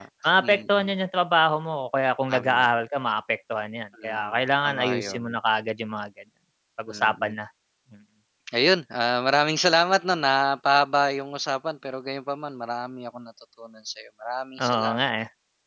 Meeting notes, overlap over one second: present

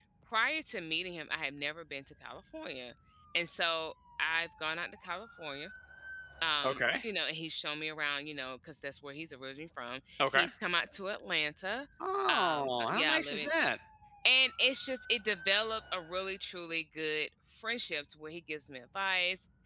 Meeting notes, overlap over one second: present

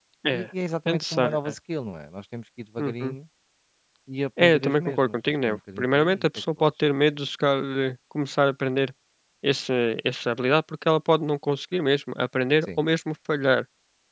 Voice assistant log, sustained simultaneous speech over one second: present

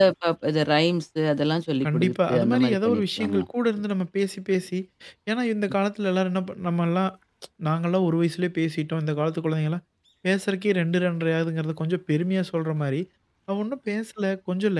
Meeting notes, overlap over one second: present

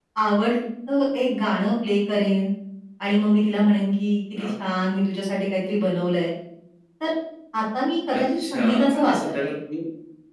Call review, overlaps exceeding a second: present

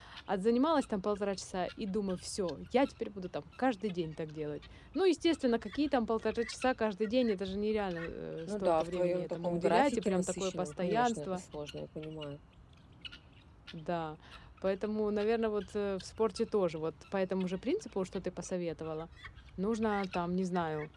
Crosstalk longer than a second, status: present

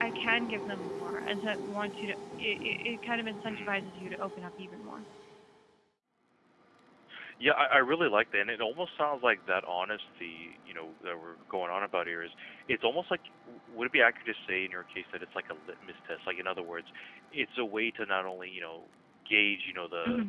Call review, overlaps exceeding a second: none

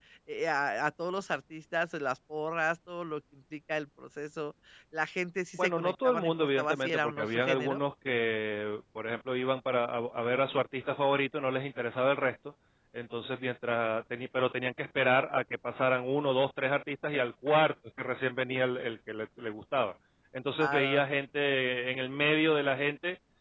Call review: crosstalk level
present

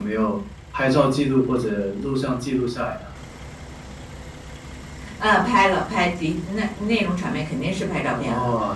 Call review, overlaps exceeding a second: none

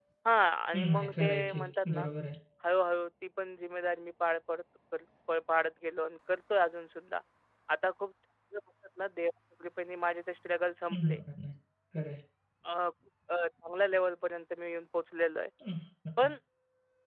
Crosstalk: present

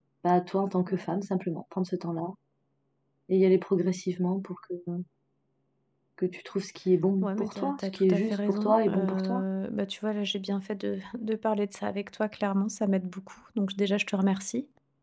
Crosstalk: present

